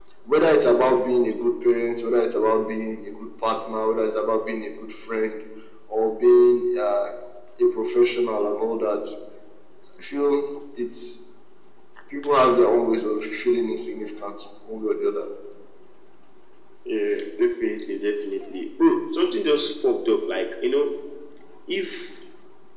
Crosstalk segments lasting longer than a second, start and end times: none

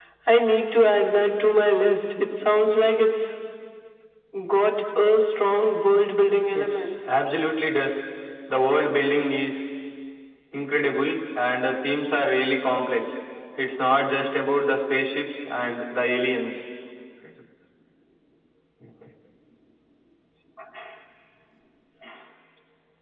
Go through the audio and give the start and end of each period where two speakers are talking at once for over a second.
none

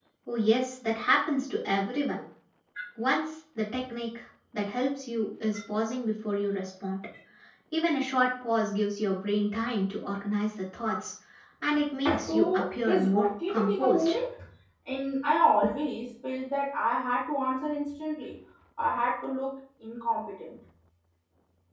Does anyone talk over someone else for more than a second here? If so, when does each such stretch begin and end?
12.2-14.1

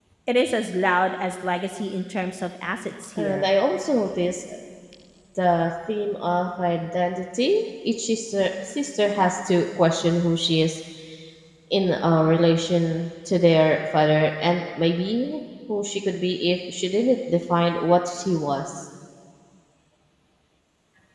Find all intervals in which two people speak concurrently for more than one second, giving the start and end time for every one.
none

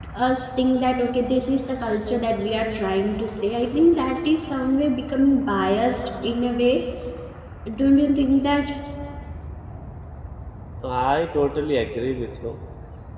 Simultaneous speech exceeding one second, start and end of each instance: none

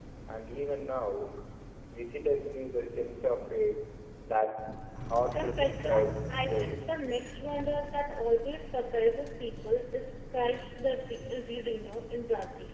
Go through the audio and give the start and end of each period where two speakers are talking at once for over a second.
5.3-6.7

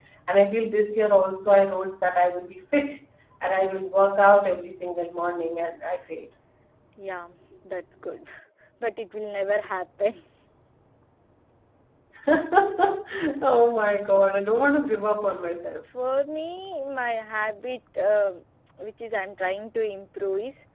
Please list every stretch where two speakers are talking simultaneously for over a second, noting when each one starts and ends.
none

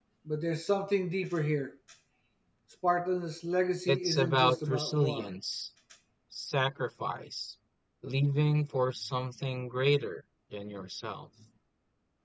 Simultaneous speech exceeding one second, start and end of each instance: 3.9-5.3

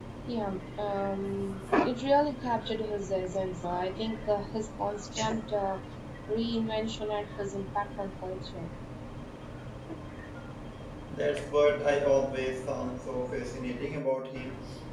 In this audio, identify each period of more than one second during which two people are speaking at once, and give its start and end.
none

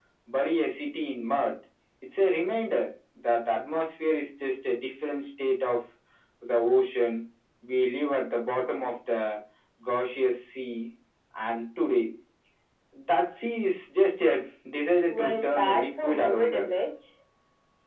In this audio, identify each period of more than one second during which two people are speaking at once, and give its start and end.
15.1-16.7

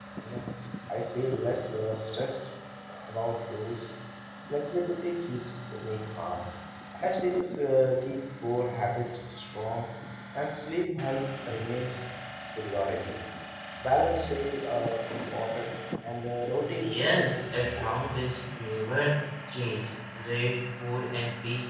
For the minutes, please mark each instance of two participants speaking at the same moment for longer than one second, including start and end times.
16.8-18.1

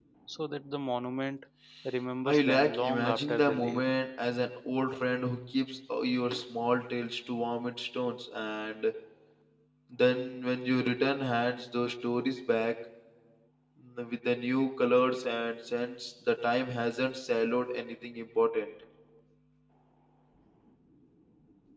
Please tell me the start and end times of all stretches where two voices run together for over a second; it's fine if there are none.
2.3-3.8

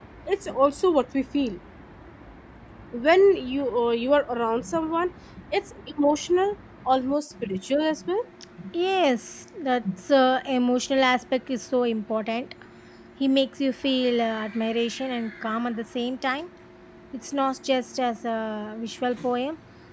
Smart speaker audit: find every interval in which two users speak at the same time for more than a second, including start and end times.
none

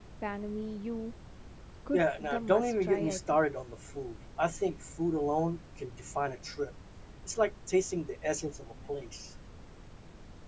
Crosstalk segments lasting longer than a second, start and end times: 1.9-3.4

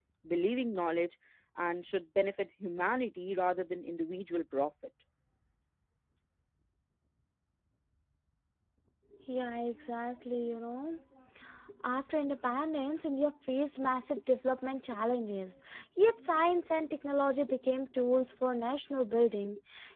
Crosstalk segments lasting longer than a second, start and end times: none

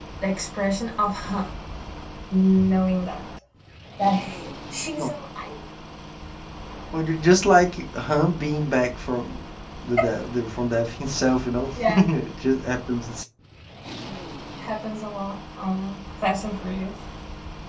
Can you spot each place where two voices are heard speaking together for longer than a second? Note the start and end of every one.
none

